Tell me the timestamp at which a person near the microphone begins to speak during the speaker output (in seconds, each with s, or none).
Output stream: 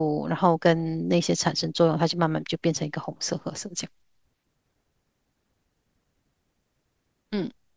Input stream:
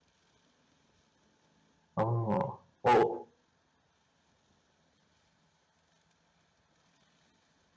1.9 s